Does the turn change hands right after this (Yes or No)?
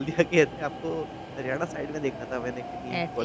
No